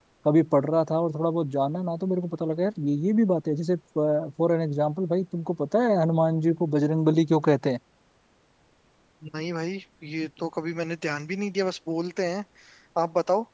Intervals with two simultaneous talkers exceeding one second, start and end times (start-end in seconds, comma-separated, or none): none